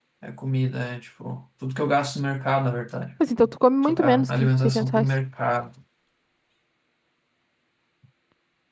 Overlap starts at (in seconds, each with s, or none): 3.8 s